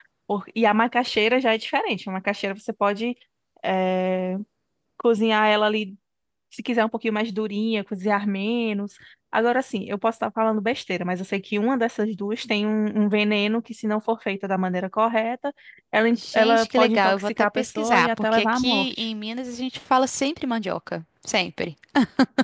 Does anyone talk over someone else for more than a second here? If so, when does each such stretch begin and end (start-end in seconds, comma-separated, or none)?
16.1-19.1